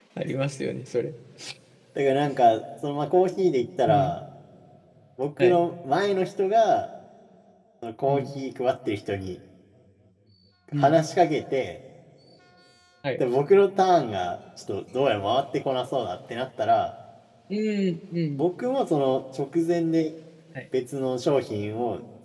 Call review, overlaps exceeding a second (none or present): none